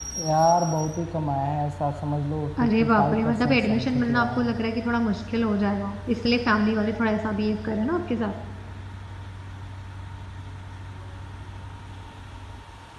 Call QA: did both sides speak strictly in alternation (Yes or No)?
No